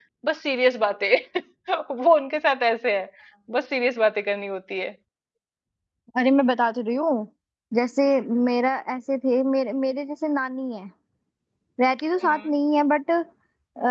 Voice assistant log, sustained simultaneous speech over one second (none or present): none